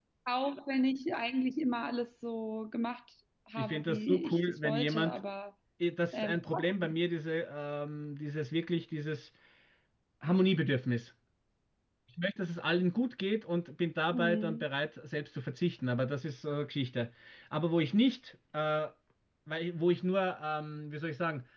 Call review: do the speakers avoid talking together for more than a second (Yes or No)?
No